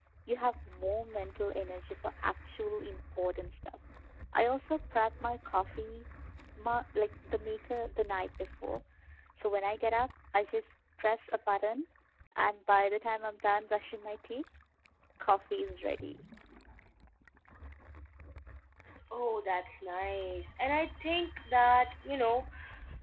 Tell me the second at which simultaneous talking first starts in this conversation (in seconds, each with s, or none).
none